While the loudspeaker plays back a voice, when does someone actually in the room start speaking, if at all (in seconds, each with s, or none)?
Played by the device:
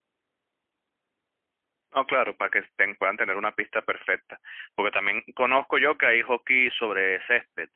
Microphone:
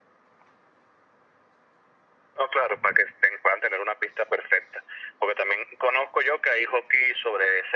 none